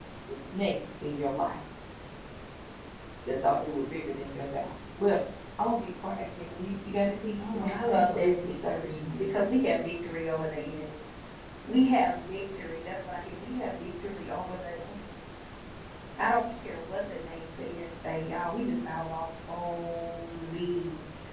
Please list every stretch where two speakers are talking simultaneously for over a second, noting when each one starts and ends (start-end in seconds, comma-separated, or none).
7.4-9.2